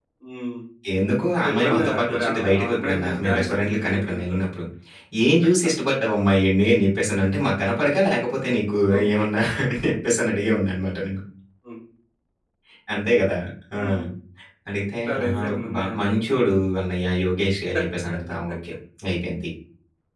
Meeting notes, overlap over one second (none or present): present